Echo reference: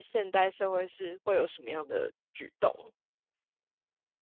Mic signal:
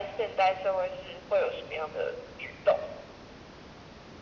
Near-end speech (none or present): none